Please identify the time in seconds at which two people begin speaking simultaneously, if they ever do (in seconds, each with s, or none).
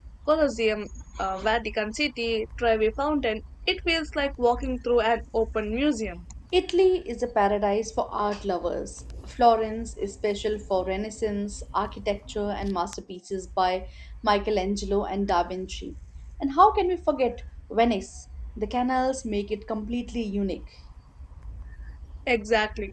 none